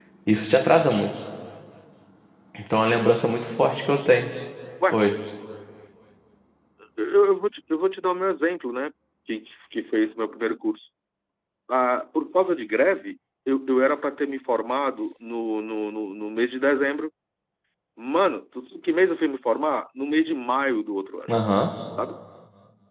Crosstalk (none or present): none